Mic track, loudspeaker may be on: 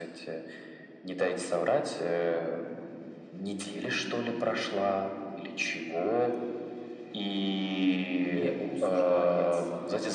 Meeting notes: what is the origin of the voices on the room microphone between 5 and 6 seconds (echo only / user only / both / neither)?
echo only